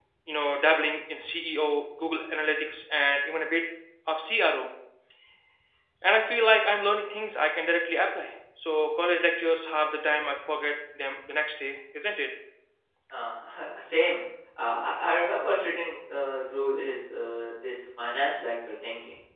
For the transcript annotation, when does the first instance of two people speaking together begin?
none

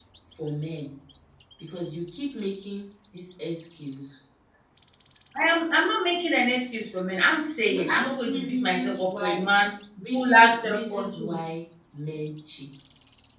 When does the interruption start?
7.7 s

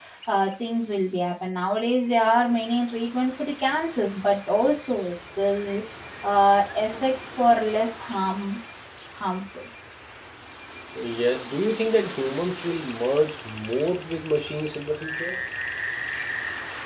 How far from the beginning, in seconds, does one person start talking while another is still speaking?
none

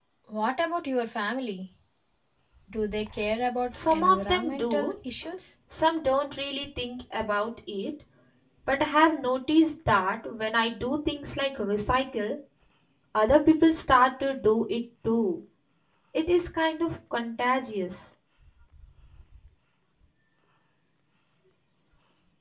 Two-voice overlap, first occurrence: 3.7 s

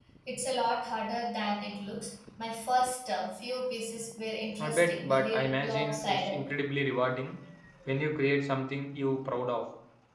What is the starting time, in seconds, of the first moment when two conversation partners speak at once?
4.6 s

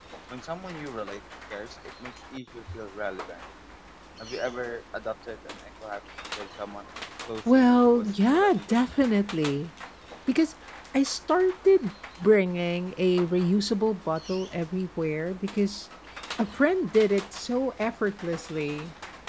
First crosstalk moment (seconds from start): 7.5 s

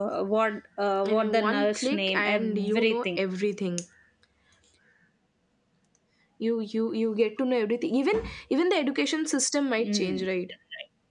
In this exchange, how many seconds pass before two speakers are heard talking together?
1.1 s

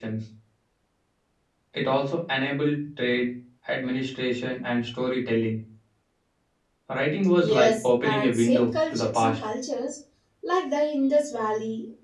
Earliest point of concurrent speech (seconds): 7.4 s

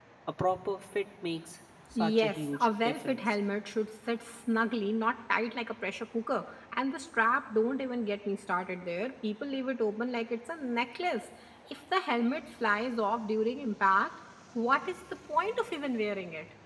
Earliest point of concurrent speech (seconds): 1.9 s

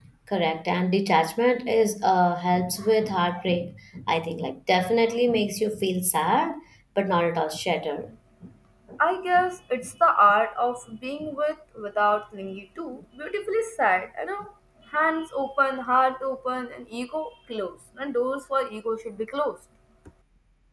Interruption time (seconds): none

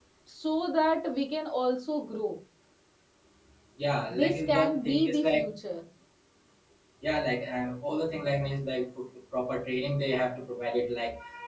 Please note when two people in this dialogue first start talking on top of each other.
4.1 s

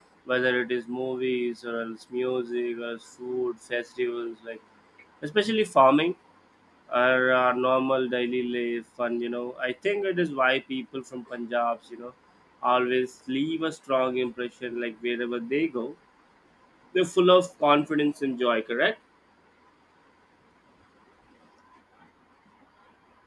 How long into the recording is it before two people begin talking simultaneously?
none

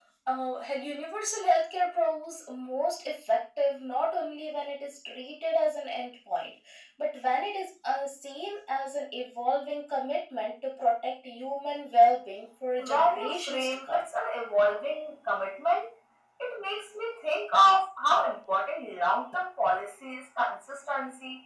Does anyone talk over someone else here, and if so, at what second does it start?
12.8 s

